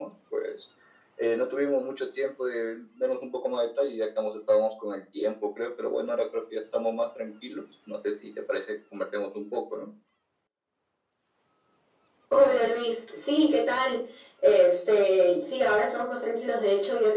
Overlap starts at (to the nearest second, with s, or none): none